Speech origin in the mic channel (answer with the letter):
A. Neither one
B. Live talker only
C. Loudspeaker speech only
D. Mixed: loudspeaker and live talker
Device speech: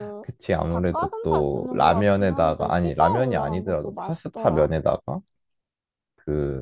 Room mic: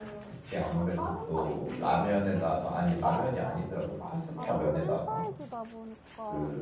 D